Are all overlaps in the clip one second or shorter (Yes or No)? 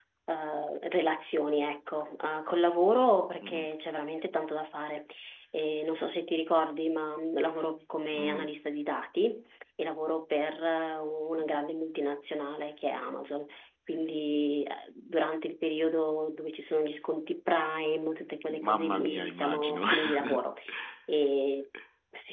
No